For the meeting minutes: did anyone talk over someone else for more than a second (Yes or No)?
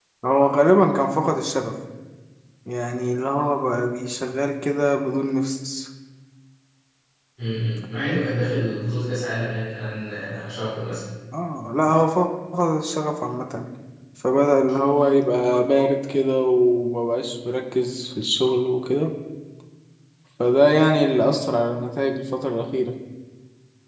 No